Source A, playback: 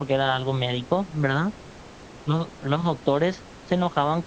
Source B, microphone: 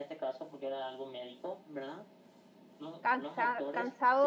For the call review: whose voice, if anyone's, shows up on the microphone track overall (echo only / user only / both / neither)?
both